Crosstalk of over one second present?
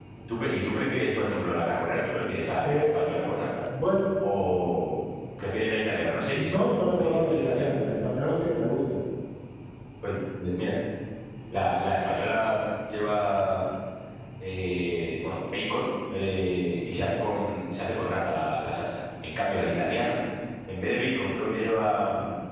Yes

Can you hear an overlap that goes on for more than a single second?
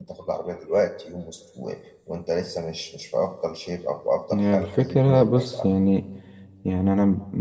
Yes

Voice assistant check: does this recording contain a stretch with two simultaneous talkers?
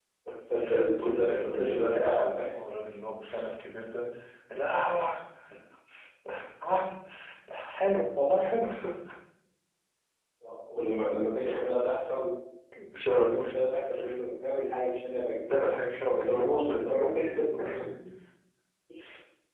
Yes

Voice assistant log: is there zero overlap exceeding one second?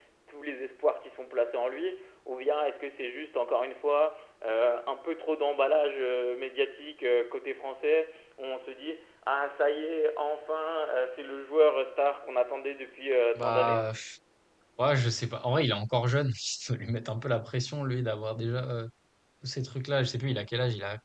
Yes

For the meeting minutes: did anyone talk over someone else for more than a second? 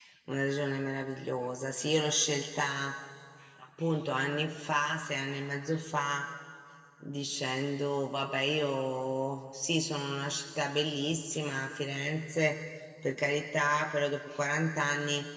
No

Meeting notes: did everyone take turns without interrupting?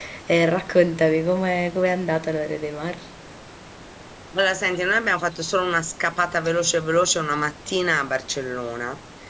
Yes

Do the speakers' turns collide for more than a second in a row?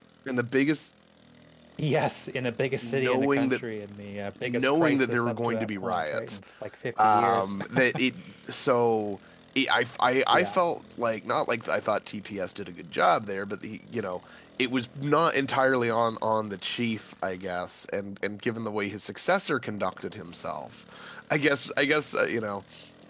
Yes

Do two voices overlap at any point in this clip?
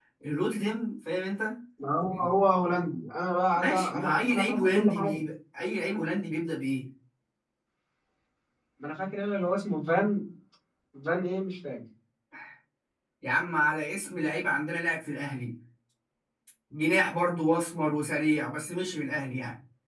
Yes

